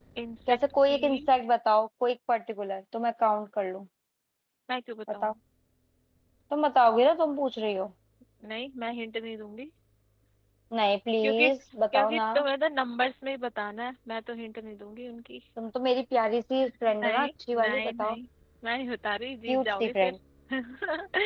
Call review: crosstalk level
present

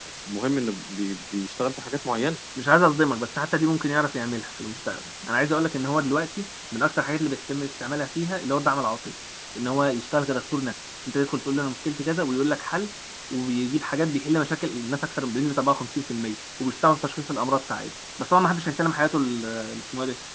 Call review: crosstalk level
none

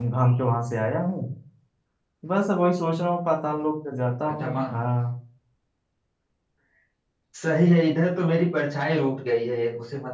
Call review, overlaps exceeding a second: none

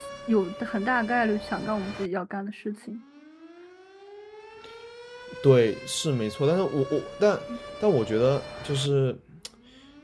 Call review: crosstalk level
none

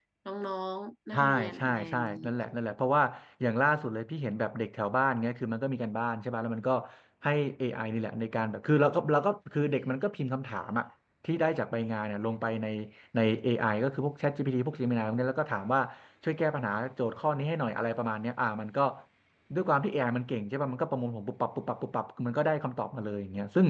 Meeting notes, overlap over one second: present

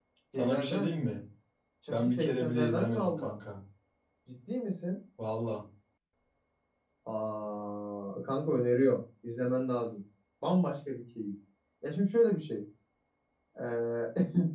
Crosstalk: present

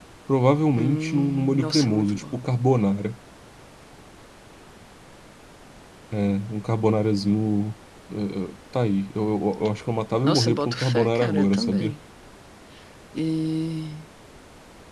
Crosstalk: present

